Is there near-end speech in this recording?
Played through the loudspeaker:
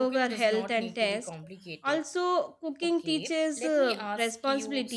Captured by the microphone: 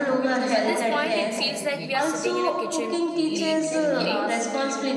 Yes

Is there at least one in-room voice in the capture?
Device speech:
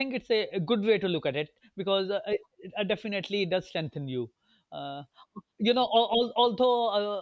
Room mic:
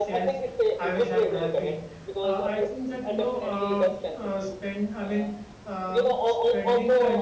Yes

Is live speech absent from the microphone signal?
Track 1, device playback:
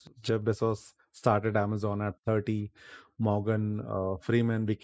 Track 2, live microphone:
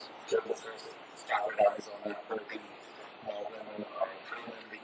Yes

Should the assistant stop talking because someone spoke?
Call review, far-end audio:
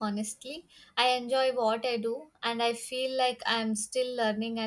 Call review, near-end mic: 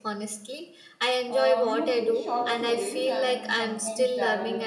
Yes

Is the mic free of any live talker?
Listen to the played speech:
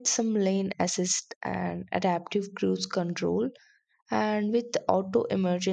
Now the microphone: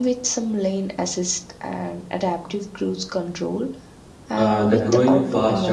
No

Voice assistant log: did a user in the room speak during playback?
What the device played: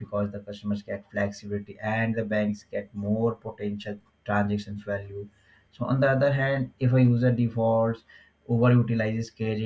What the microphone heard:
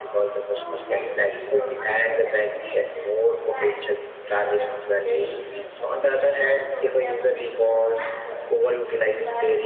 Yes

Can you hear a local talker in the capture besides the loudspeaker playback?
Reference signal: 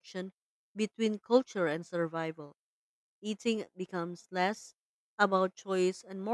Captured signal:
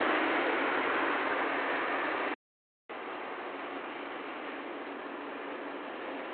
No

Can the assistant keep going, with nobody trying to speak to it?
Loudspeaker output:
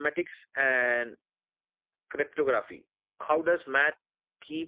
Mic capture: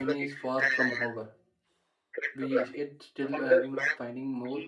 No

